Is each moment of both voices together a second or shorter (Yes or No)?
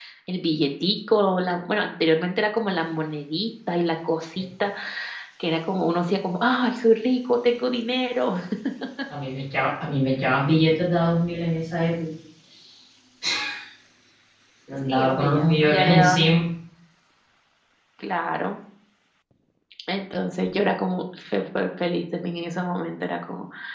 No